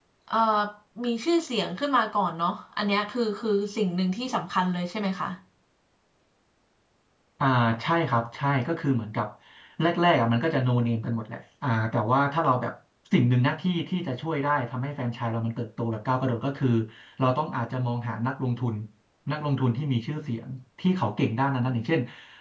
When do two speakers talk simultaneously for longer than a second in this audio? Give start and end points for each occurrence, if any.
none

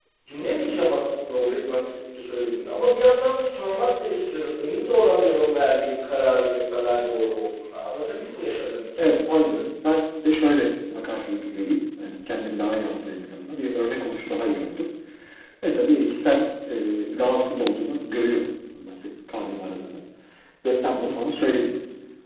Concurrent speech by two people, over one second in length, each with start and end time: none

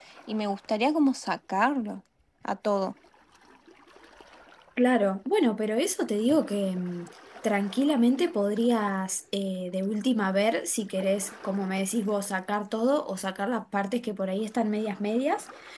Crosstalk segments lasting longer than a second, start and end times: none

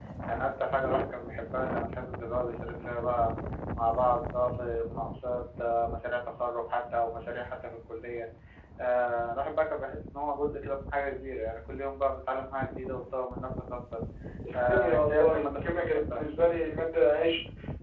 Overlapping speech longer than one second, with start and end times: 14.5-16.3

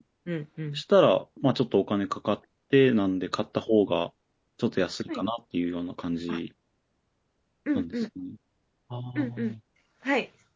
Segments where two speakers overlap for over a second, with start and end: none

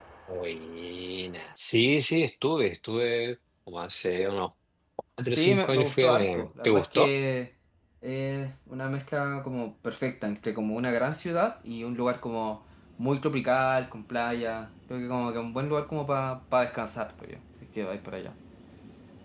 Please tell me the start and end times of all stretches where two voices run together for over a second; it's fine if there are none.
5.4-7.1

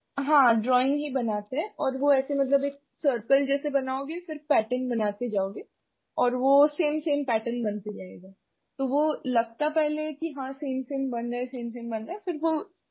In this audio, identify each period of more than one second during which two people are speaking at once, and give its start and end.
none

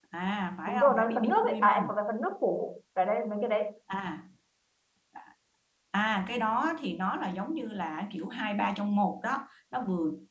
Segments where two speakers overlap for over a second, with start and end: 0.7-1.9

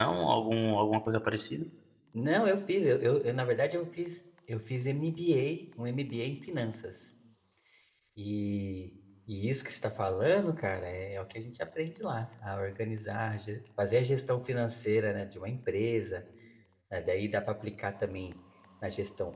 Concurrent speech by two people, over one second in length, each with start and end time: none

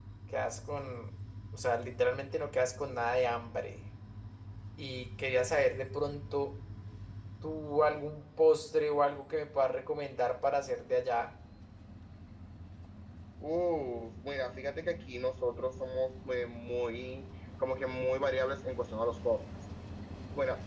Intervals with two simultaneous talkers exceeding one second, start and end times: none

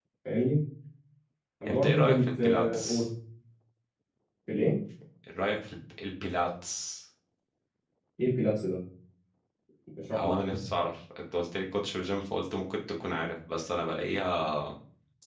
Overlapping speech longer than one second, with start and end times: 1.7-3.0

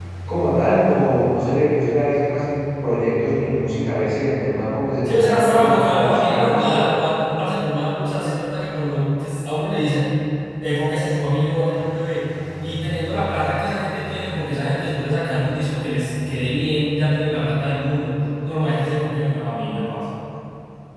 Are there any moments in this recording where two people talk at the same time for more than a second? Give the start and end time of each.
5.0-6.8

